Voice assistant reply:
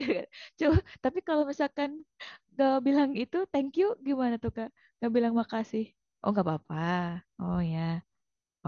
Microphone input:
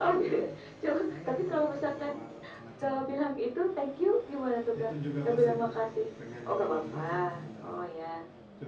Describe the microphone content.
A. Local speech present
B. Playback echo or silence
A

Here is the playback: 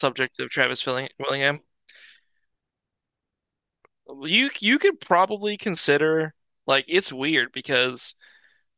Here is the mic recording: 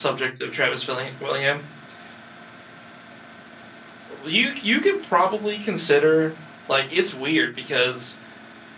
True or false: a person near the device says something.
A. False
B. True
A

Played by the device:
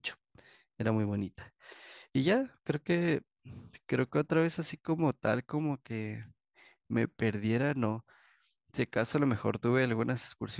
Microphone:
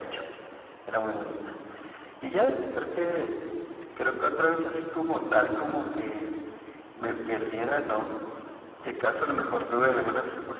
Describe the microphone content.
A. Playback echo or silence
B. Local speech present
A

